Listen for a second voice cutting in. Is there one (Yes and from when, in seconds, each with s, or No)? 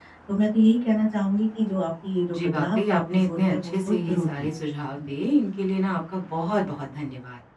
Yes, from 2.3 s